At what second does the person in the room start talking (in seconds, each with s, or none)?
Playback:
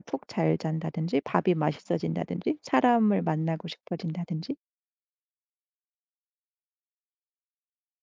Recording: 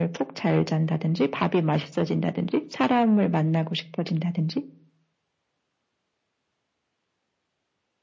none